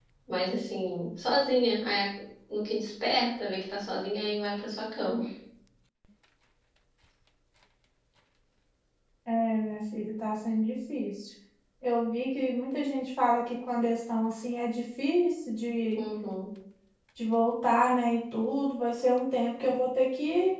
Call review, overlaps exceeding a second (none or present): none